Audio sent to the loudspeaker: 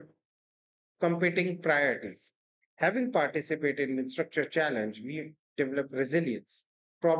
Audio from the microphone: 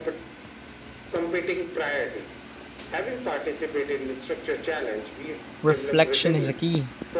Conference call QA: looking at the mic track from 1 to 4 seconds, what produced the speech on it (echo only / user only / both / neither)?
echo only